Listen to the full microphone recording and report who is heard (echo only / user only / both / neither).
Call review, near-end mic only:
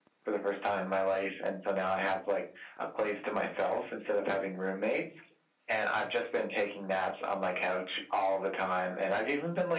echo only